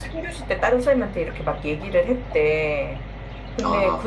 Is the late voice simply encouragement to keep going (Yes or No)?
Yes